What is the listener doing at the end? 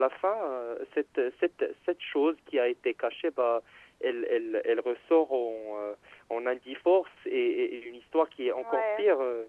taking over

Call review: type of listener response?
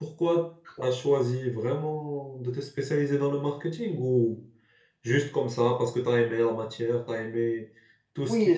taking over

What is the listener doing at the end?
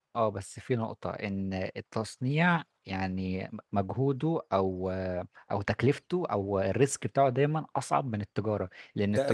listening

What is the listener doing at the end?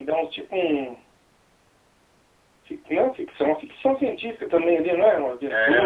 taking over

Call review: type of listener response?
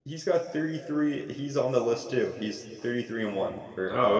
taking over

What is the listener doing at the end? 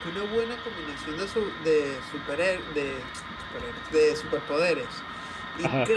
listening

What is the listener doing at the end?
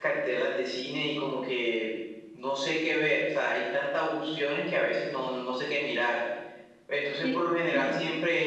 listening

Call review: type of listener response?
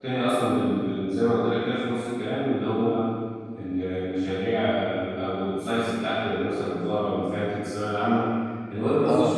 listening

